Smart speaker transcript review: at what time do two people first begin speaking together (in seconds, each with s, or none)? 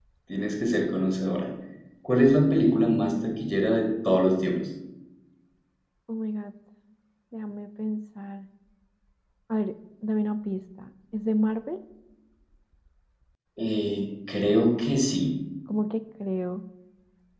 none